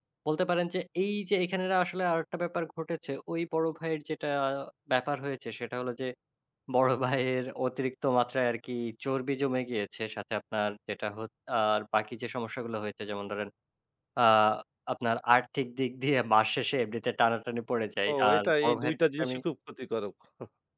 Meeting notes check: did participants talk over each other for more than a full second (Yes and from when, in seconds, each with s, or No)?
Yes, from 18.1 s